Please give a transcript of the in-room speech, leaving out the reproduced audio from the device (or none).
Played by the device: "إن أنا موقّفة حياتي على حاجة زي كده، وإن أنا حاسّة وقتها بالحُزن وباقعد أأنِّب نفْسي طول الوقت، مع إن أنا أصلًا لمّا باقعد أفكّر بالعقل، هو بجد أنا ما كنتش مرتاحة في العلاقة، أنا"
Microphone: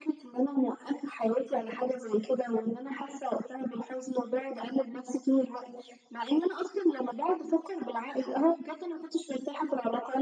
none